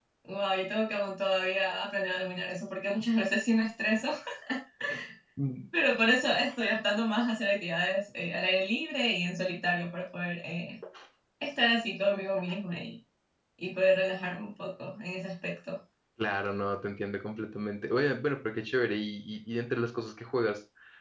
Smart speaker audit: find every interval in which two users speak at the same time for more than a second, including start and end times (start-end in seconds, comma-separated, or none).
none